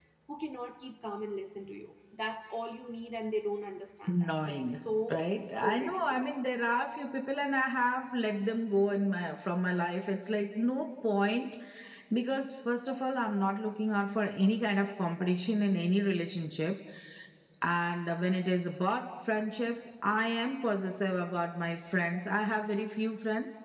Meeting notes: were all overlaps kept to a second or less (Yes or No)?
No